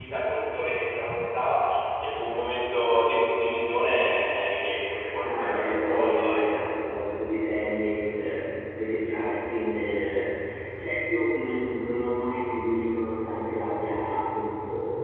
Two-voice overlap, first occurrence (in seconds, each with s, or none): 5.2 s